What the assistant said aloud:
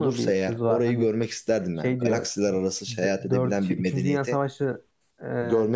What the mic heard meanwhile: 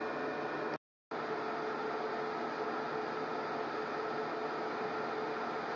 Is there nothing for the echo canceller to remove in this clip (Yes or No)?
Yes